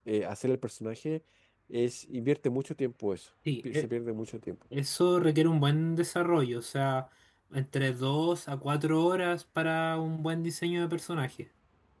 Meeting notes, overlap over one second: none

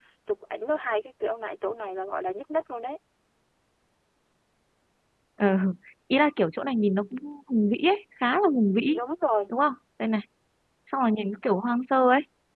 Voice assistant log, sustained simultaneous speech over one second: none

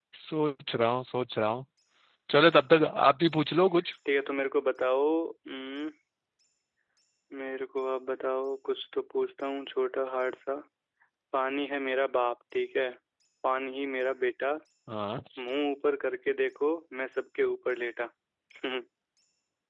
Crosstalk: none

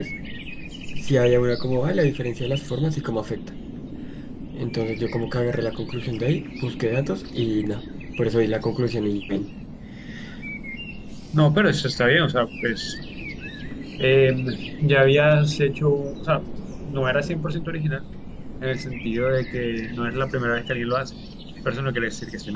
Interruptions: none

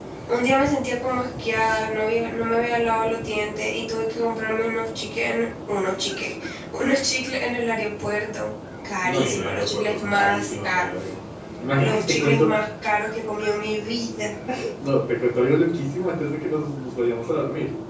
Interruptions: present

